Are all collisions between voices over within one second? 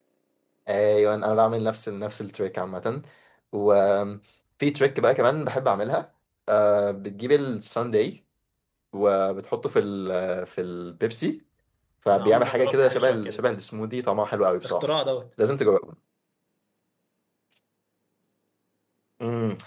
No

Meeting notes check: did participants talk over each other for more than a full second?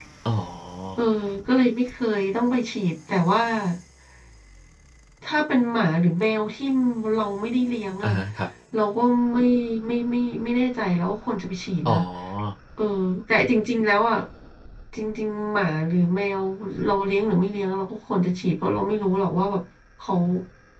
No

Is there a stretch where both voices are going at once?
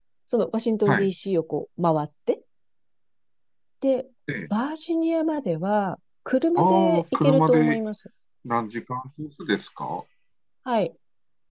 Yes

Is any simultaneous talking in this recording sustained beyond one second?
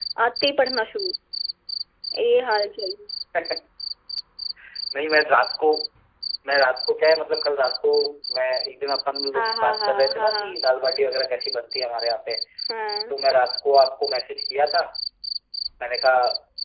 Yes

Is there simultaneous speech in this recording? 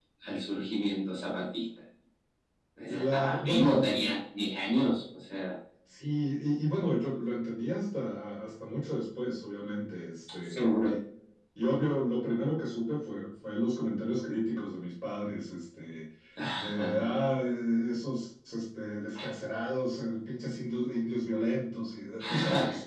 Yes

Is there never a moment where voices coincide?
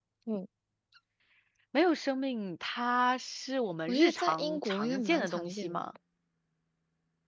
No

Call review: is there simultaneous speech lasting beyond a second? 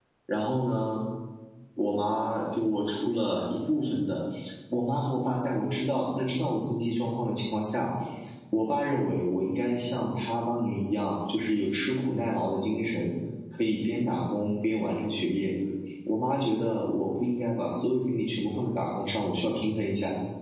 No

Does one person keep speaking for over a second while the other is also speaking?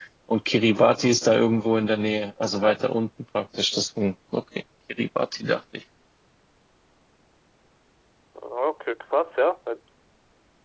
No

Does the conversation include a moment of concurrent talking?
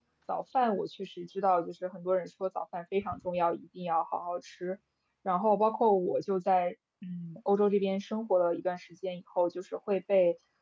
No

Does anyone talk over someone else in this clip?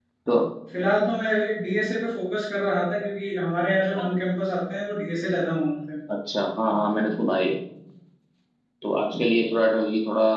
No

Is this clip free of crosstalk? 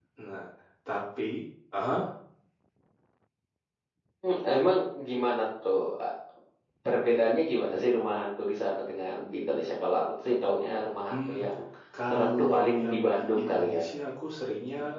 No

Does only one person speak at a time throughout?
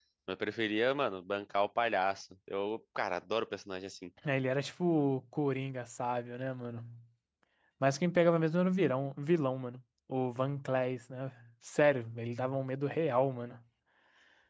Yes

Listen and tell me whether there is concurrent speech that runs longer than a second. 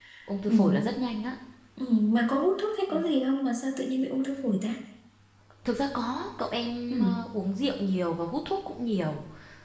No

